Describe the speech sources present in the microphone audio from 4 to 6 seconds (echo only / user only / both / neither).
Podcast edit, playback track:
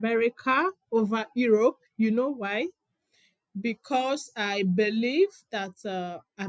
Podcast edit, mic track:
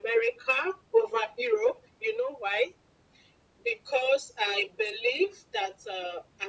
echo only